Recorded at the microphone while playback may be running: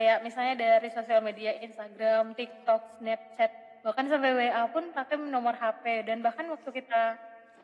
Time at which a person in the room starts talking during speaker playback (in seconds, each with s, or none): none